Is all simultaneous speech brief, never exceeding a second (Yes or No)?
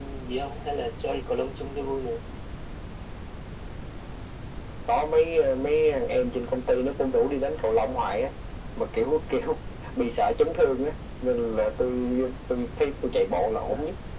Yes